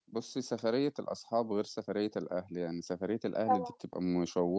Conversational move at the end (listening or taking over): listening